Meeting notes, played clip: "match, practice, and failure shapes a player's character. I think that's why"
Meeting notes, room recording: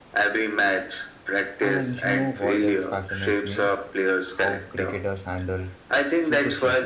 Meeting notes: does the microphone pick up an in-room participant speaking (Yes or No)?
Yes